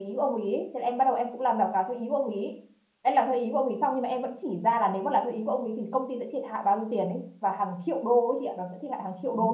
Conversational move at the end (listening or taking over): taking over